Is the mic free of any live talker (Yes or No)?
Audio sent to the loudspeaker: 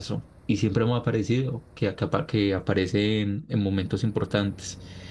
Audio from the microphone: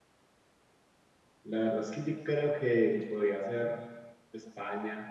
No